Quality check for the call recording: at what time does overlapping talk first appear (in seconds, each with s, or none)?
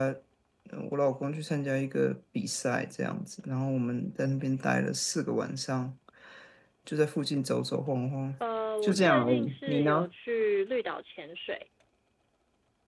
8.8 s